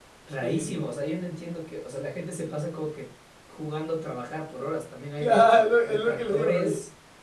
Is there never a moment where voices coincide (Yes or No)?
No